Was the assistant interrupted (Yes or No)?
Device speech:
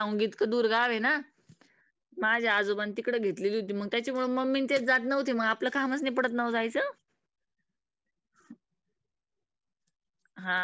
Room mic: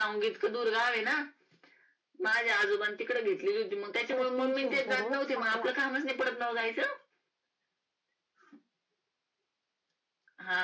Yes